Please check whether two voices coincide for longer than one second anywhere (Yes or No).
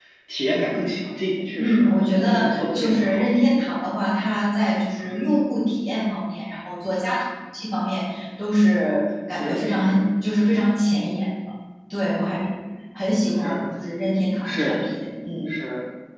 Yes